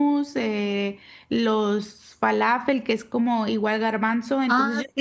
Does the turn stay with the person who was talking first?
No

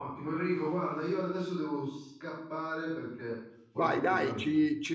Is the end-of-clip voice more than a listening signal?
Yes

